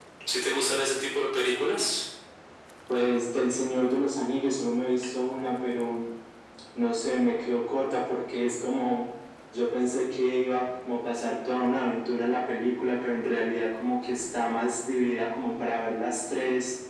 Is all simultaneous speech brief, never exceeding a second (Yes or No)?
Yes